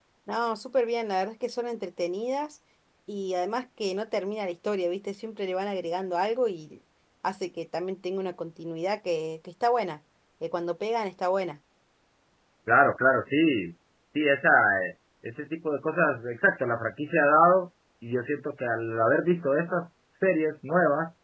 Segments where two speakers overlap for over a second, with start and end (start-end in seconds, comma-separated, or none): none